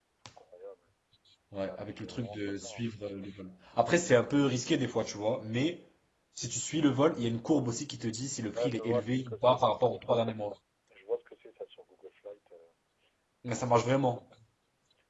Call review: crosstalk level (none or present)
present